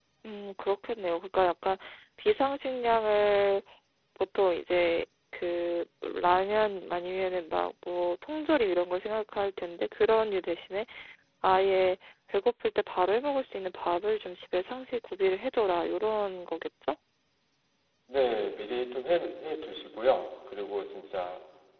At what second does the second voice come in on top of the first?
none

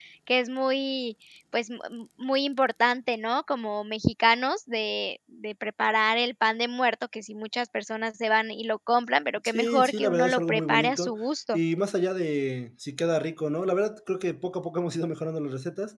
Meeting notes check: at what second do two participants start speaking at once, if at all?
9.4 s

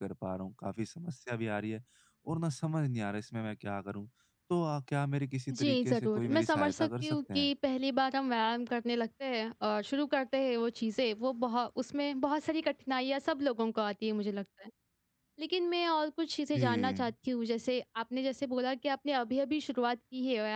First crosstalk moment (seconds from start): 5.5 s

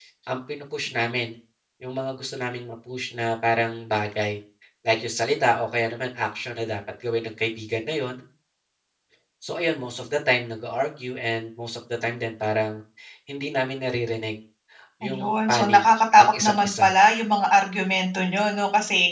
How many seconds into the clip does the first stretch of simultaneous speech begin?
15.0 s

